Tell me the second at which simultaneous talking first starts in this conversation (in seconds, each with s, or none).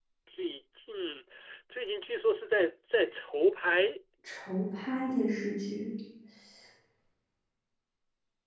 none